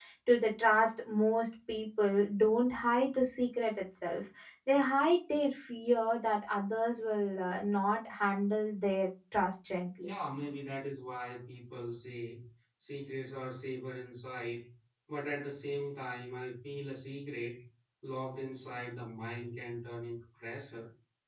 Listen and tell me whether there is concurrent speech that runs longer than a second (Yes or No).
No